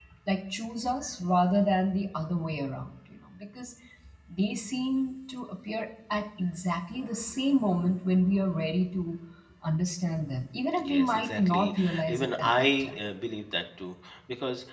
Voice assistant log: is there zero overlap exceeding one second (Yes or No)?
No